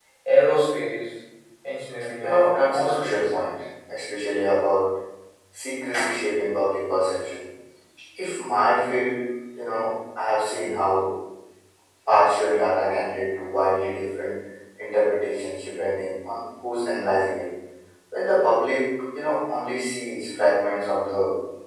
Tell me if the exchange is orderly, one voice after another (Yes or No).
No